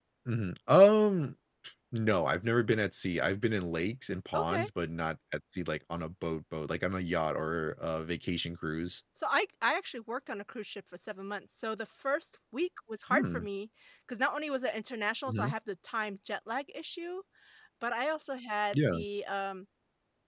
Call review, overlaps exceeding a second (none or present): none